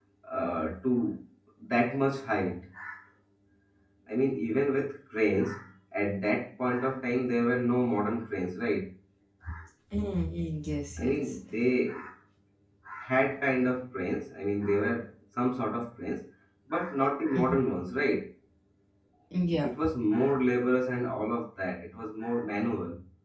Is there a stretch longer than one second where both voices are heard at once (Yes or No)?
No